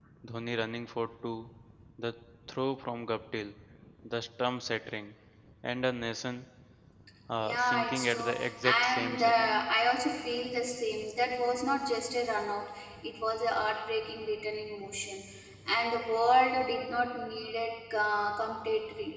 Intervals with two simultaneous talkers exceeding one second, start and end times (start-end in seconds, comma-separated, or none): 7.4-9.6